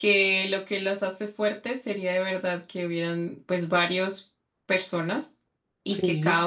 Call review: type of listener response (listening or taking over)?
listening